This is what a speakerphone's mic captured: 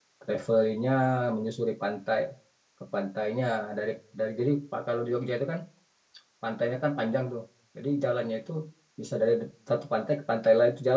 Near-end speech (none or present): present